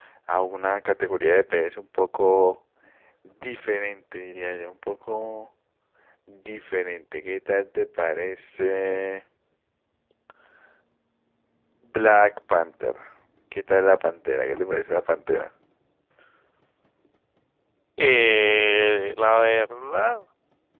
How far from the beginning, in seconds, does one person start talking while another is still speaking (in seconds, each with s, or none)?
none